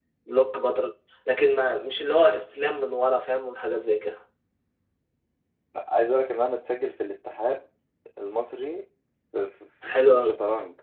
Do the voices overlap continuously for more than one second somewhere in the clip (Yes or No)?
No